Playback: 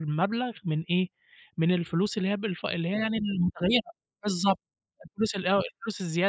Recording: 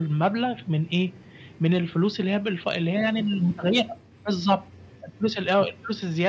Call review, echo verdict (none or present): present